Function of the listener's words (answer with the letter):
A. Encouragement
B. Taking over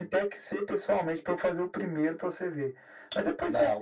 A